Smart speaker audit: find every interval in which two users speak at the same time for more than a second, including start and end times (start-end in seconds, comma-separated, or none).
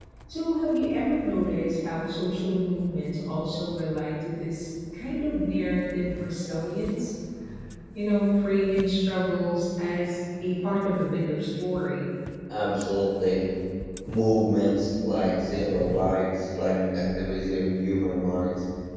none